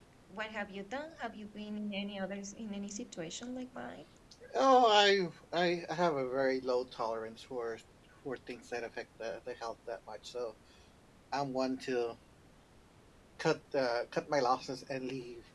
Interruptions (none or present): none